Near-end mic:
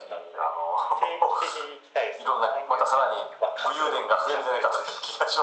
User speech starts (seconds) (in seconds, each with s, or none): none